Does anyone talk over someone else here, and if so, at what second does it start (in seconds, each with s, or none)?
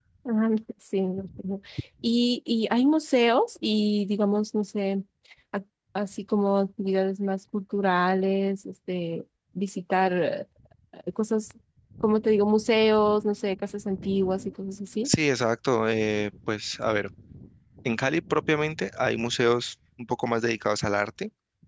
none